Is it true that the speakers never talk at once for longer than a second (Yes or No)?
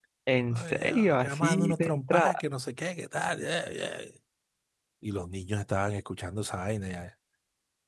No